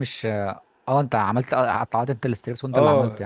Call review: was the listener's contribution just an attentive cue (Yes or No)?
No